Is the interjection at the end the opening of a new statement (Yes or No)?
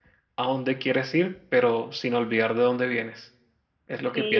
Yes